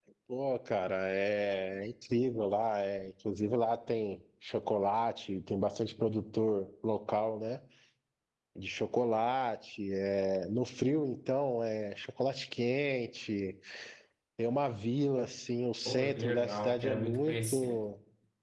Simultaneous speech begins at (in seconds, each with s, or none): 15.8 s